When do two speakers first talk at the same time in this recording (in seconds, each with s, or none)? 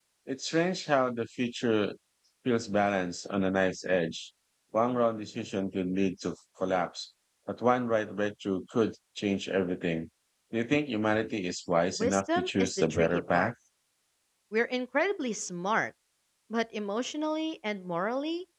11.9 s